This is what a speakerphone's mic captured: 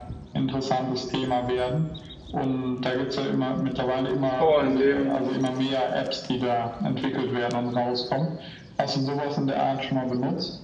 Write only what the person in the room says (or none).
Boah, in dem